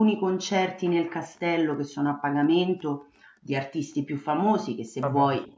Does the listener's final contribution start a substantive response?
No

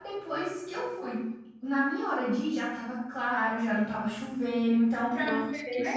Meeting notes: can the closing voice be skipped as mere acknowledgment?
No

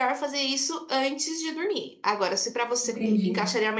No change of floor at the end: Yes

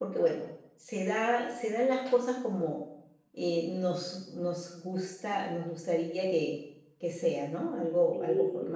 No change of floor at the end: No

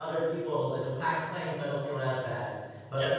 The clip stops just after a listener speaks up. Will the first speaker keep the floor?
Yes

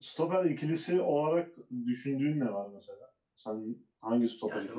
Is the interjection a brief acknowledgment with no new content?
No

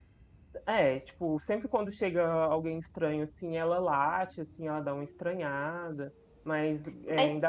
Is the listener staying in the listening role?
Yes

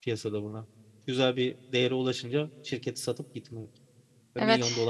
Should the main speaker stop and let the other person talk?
Yes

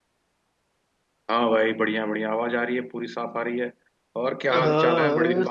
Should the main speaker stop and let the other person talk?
Yes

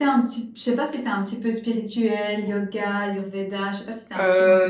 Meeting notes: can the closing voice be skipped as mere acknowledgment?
No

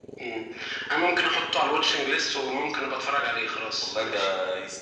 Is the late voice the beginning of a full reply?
Yes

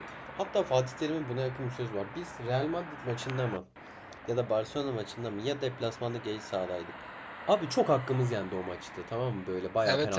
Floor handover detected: Yes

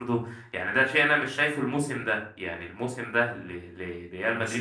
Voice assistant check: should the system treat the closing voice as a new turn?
No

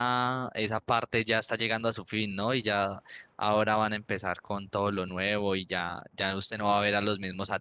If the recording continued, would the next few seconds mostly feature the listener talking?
No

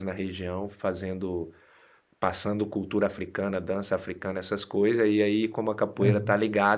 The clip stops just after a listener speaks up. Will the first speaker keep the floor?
Yes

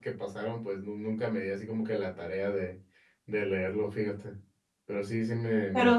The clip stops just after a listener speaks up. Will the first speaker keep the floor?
No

